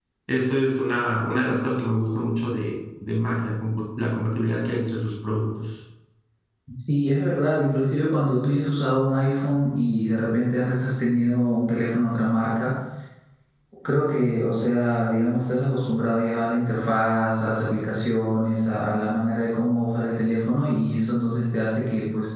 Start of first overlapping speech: none

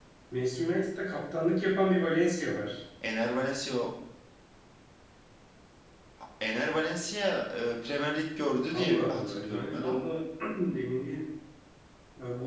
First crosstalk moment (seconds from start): 8.7 s

